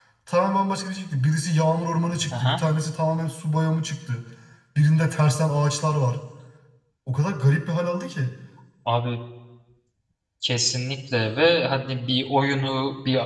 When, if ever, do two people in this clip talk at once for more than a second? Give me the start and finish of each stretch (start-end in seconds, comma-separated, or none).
none